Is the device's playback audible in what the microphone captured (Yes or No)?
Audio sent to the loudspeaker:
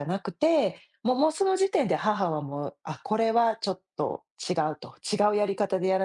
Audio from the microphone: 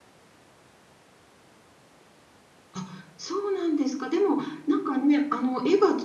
No